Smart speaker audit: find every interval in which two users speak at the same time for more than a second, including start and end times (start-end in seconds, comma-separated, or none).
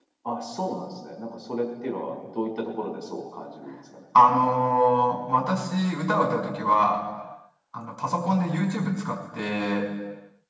none